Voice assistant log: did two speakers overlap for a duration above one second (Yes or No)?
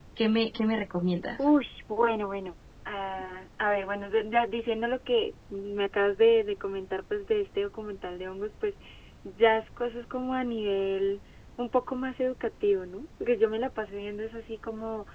No